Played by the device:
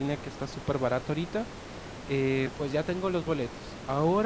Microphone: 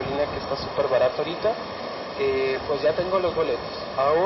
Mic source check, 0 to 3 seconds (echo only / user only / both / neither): echo only